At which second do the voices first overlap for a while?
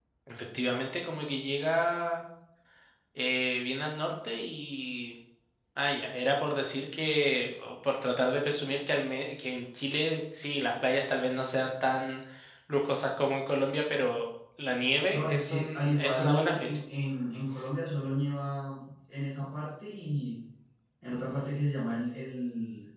15.1 s

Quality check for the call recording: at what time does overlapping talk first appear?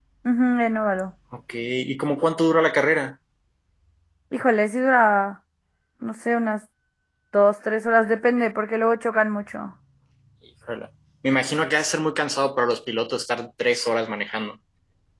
none

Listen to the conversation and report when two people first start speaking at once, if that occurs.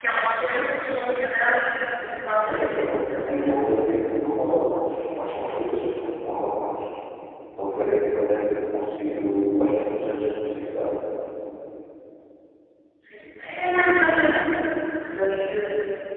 2.4 s

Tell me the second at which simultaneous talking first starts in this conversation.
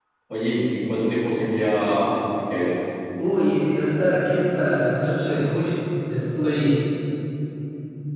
none

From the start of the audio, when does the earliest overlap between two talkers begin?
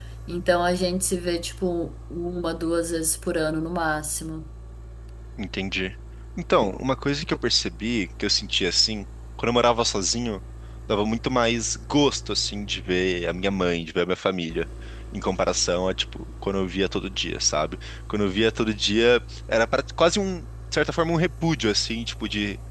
none

